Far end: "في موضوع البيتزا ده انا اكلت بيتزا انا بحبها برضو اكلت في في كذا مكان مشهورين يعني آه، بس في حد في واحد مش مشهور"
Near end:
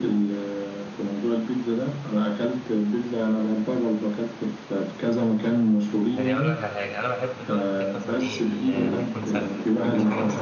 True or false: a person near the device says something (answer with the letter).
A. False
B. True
B